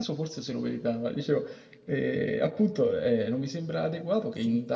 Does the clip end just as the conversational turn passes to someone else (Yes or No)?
No